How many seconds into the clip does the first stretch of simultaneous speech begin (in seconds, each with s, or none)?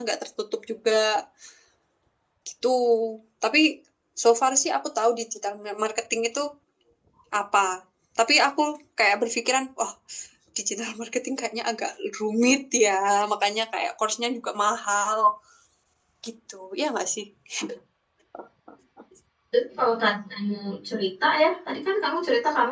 none